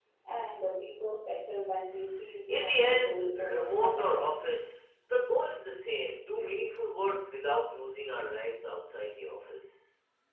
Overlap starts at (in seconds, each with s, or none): 2.5 s